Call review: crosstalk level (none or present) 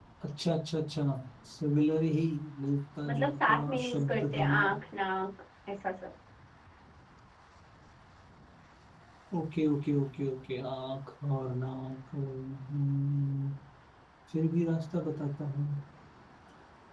present